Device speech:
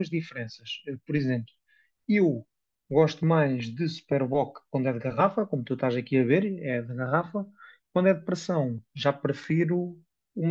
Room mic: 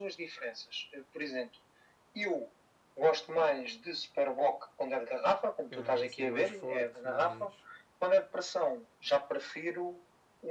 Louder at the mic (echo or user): echo